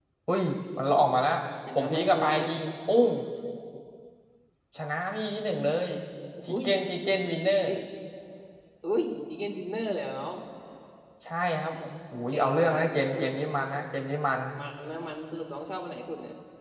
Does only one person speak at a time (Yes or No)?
No